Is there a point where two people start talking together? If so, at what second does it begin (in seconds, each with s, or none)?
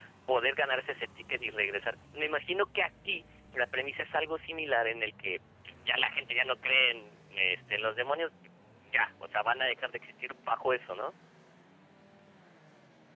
none